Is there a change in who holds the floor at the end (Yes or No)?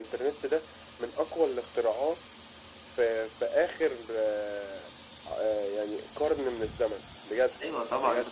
Yes